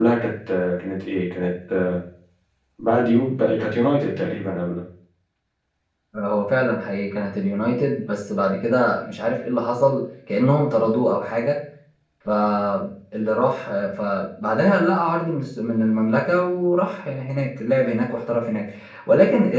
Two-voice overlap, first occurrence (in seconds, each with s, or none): none